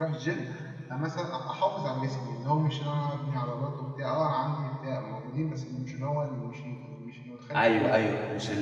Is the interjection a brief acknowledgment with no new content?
No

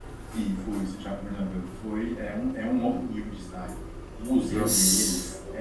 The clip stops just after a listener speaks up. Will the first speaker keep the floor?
Yes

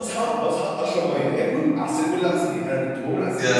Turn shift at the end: No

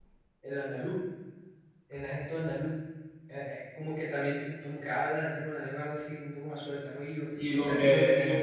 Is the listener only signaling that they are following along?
No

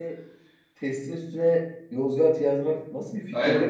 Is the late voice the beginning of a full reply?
Yes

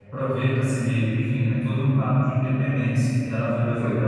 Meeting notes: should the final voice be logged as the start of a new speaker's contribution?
No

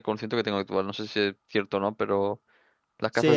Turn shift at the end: Yes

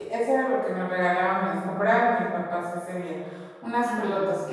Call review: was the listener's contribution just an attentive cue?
Yes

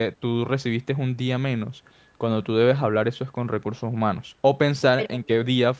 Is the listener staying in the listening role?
Yes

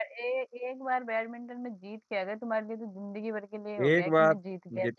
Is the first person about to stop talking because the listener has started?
Yes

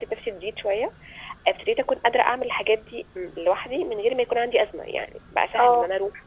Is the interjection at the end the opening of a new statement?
No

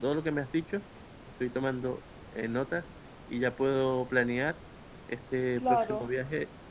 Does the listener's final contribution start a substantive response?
No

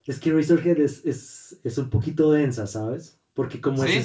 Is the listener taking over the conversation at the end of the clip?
No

